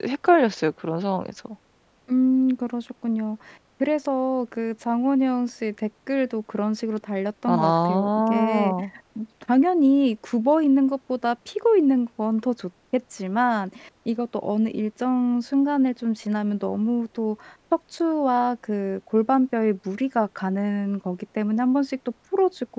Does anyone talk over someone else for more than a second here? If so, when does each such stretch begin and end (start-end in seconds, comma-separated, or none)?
7.5-8.7